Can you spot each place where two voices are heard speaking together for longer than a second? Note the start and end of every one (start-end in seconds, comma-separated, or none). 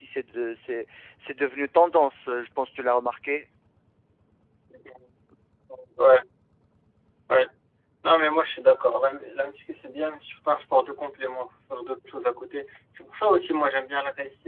none